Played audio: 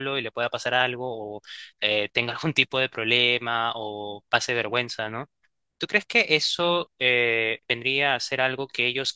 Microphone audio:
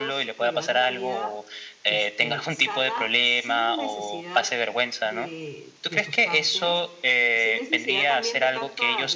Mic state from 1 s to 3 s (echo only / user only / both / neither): both